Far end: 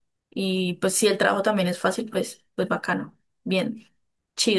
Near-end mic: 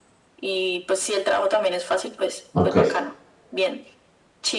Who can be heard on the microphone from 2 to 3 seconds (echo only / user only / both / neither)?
both